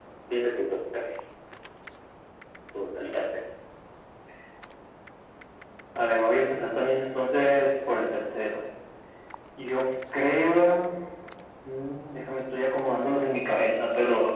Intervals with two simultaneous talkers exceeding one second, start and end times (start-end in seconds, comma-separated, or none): none